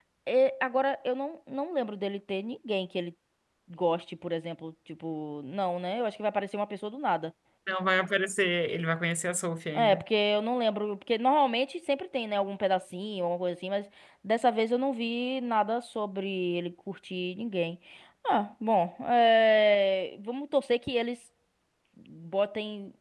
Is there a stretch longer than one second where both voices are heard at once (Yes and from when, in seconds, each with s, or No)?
No